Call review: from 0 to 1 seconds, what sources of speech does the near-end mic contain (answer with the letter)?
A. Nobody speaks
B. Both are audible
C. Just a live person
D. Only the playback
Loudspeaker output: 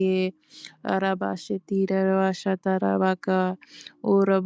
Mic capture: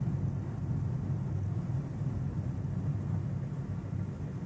A